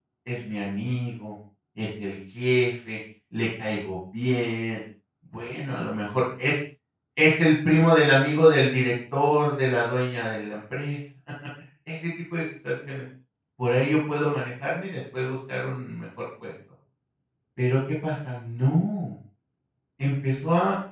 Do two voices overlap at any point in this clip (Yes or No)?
No